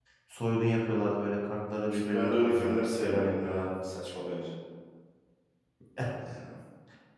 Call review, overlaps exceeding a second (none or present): present